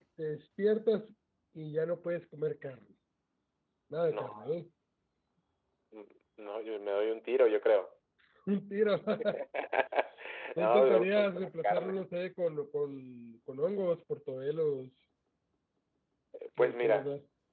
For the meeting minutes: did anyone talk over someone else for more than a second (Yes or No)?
Yes